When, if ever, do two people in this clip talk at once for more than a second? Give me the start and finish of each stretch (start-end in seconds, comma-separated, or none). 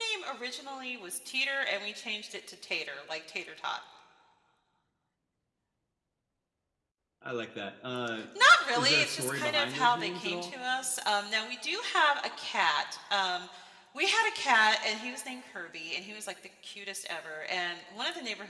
8.7-10.5